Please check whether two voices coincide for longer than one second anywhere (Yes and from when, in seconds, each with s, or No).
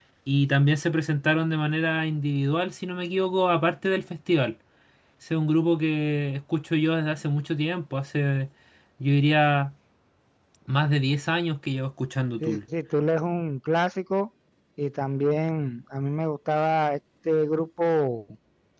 No